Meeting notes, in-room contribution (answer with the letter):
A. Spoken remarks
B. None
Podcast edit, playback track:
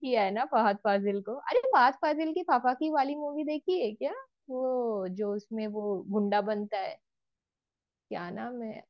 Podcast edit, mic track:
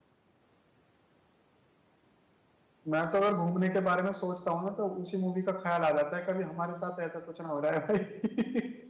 A